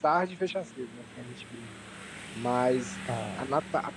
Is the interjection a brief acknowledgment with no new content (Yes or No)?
Yes